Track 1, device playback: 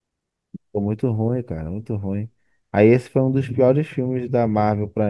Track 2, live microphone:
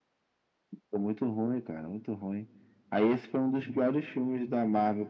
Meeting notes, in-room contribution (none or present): none